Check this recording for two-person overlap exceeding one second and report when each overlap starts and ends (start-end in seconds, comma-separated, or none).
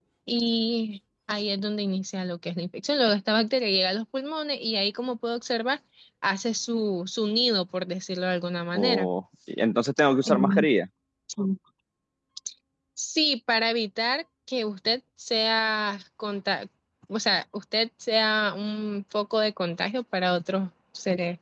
none